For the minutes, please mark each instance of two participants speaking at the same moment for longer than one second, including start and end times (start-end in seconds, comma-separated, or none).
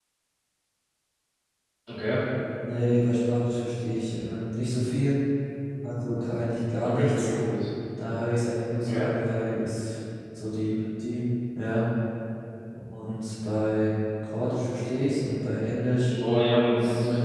none